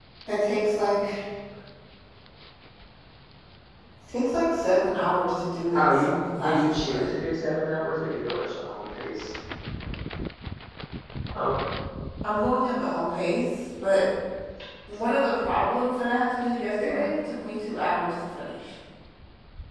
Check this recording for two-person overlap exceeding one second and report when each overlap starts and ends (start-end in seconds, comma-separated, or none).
5.7-7.1